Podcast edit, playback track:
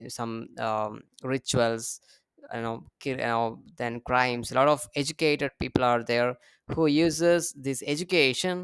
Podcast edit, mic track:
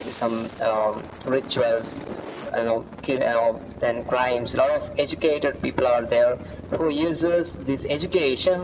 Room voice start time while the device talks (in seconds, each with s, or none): none